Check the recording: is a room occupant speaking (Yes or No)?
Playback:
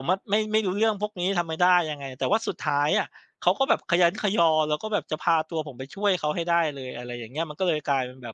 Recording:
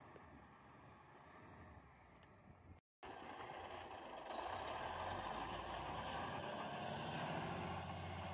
No